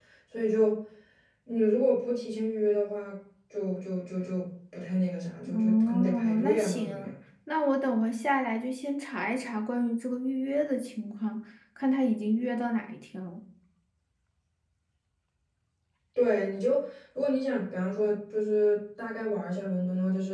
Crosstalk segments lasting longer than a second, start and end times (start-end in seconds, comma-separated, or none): 5.5-7.1